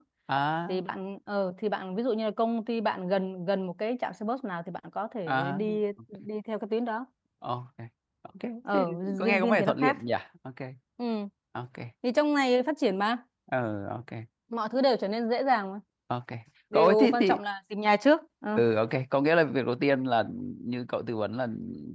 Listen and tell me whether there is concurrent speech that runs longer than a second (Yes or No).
Yes